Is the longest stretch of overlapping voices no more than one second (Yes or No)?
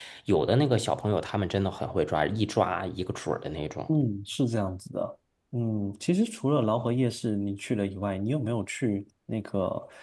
Yes